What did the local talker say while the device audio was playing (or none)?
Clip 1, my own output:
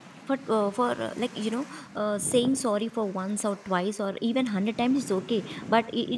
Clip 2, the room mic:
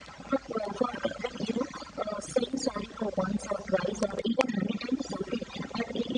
none